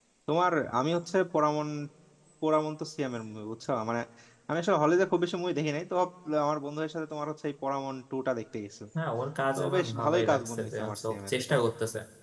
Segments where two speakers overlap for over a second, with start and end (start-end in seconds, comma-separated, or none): 9.6-11.5